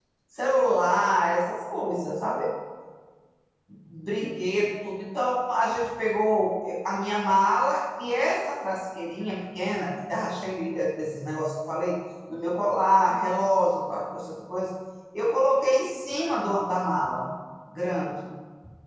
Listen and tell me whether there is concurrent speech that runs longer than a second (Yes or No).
No